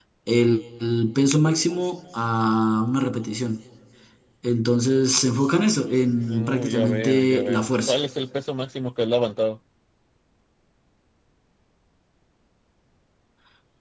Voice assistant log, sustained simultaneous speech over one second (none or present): present